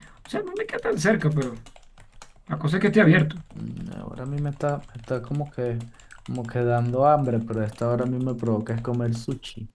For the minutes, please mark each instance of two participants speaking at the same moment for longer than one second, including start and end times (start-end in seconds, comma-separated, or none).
none